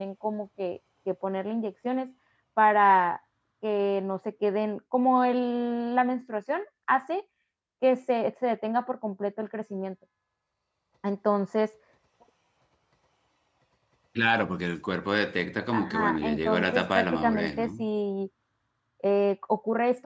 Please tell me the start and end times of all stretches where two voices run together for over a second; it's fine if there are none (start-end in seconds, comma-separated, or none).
15.7-17.9